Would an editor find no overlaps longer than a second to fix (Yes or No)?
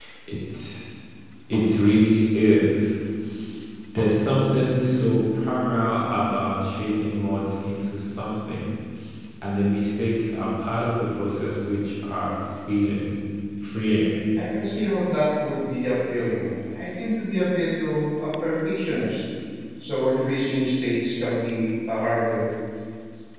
Yes